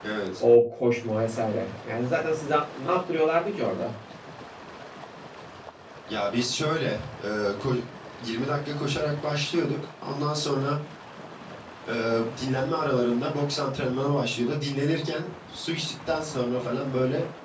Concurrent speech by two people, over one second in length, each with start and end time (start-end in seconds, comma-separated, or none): none